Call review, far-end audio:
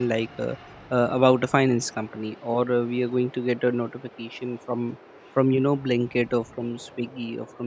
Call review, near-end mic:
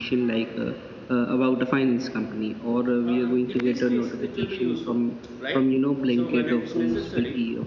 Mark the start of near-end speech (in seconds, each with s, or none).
3.0 s